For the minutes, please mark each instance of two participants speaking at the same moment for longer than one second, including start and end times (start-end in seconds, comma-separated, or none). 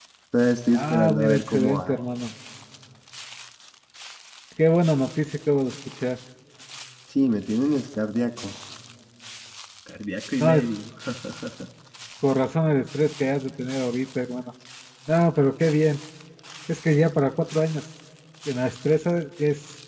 0.7-2.0